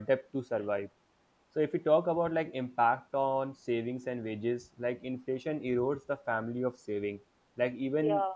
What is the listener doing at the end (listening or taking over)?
listening